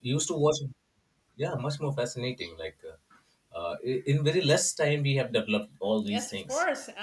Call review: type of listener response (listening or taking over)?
taking over